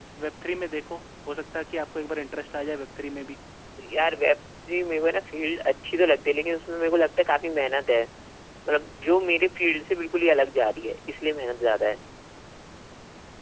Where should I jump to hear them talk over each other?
none

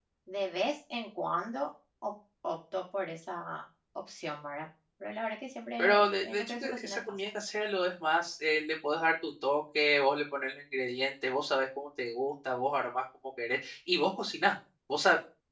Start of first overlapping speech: 6 s

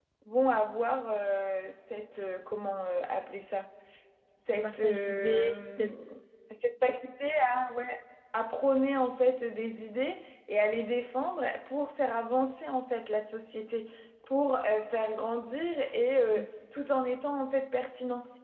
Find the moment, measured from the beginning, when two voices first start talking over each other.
4 s

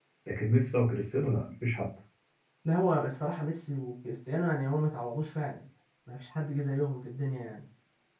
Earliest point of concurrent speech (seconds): none

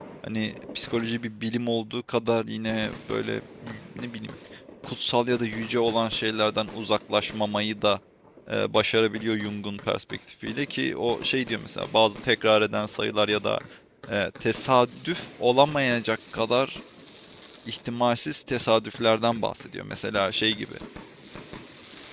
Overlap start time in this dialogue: none

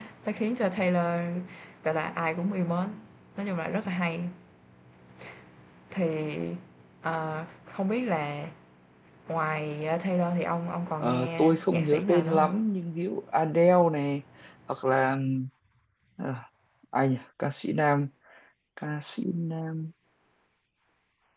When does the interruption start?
11 s

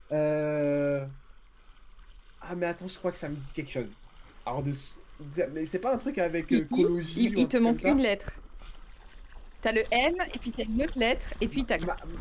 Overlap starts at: 7 s

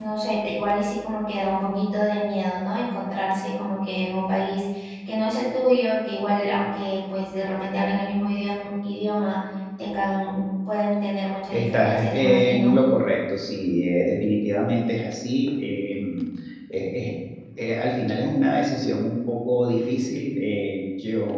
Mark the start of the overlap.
12 s

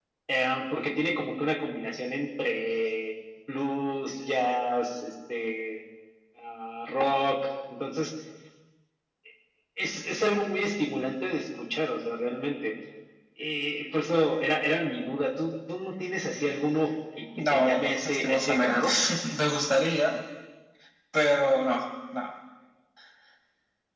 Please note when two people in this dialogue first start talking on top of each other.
17 s

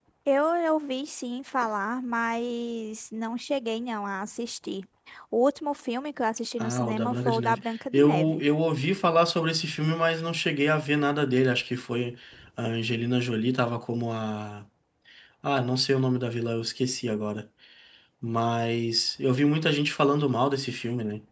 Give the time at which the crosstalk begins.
7 s

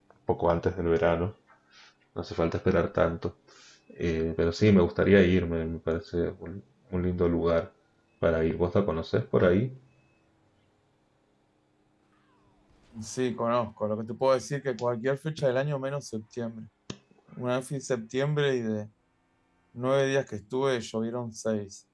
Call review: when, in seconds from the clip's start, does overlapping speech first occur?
none

